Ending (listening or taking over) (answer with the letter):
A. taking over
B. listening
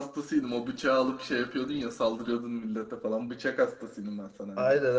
A